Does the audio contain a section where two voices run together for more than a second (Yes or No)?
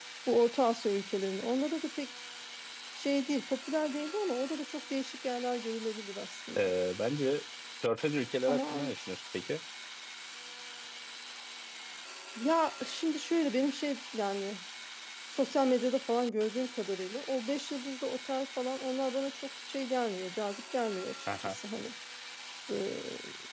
No